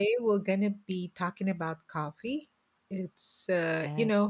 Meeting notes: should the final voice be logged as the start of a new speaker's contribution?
No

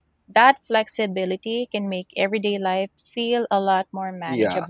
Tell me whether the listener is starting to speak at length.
Yes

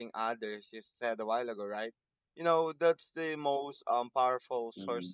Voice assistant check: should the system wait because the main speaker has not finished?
Yes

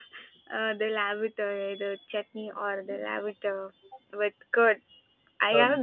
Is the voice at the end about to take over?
No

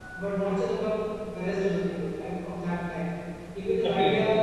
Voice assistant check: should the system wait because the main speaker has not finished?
Yes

